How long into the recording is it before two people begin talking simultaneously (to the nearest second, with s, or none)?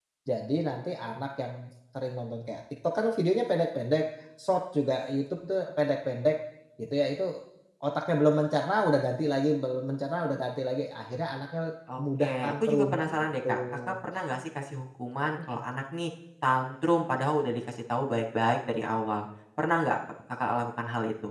12 s